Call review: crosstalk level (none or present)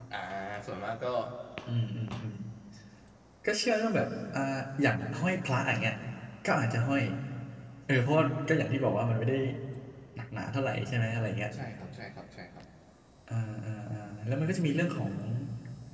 none